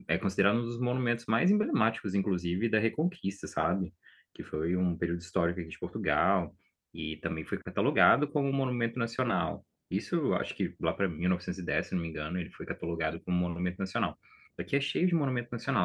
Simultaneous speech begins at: none

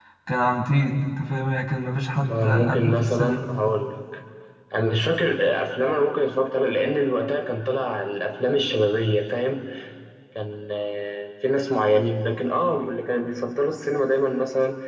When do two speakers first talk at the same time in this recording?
2.2 s

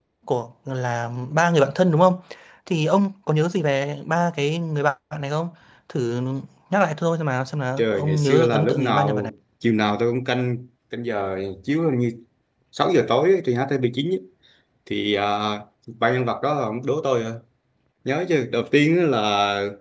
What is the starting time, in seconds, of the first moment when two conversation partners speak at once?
7.8 s

